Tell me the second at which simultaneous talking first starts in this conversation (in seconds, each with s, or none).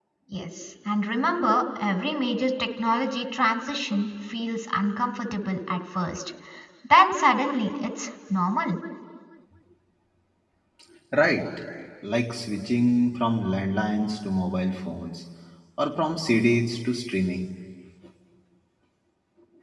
none